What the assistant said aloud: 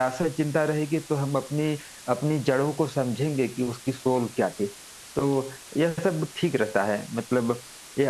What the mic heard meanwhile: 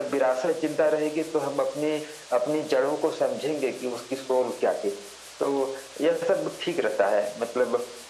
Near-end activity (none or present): none